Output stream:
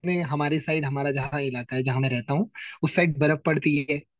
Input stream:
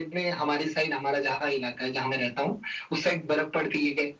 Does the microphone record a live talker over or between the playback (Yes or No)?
No